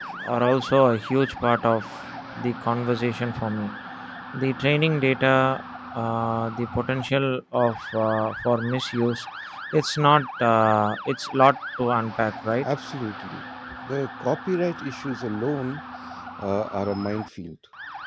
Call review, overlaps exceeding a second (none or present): none